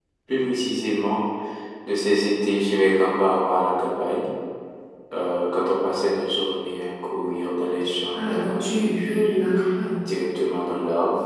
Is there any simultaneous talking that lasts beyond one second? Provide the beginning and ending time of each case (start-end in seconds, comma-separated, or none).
8.1-9.3